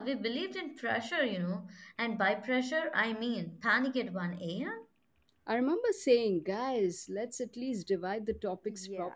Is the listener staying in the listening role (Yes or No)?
No